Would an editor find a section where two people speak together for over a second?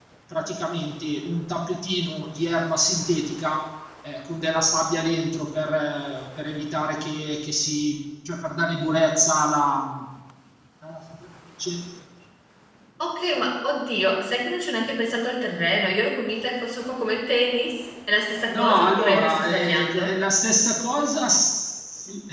Yes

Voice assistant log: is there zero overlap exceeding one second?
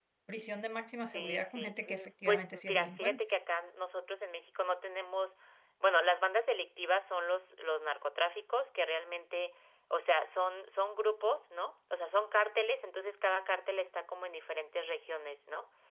No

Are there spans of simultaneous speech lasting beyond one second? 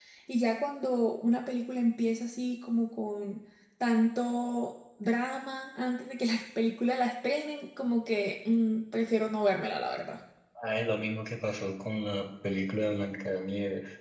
No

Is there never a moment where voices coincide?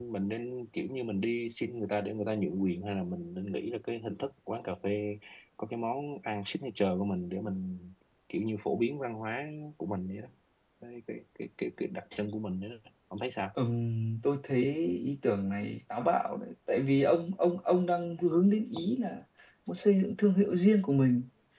Yes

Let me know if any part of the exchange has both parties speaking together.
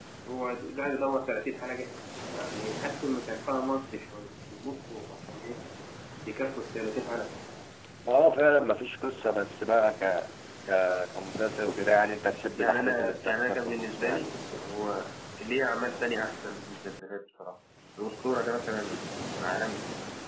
Yes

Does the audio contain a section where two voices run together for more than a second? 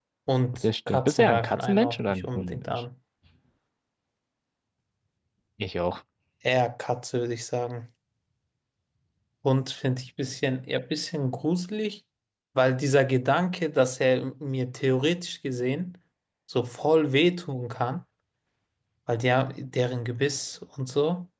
Yes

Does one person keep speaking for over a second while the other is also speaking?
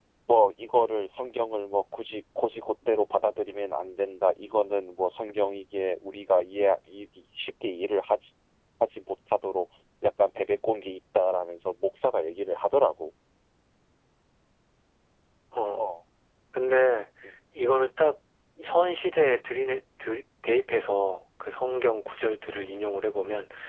No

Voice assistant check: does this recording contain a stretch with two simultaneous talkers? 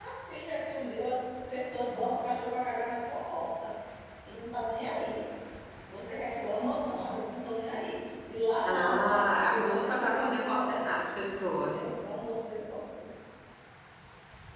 Yes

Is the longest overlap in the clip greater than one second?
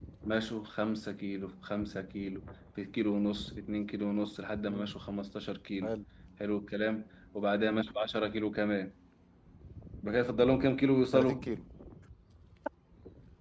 No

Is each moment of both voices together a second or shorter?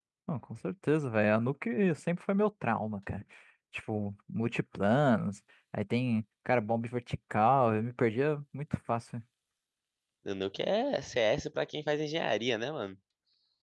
Yes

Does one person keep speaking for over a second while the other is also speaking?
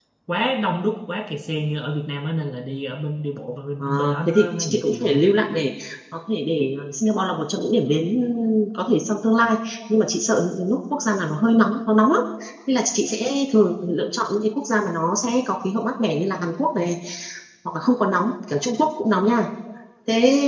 Yes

